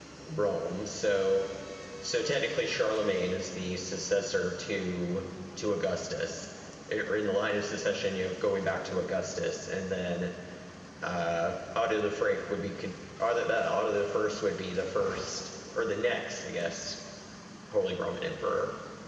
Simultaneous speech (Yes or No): No